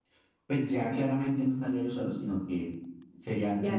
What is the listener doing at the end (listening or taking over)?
taking over